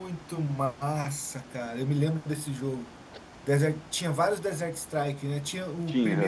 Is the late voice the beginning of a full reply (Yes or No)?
No